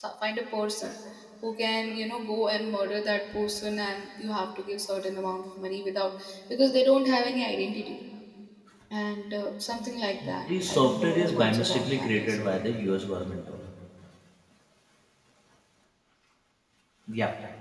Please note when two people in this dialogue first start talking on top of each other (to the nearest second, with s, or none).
10 s